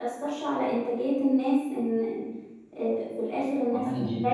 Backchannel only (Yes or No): No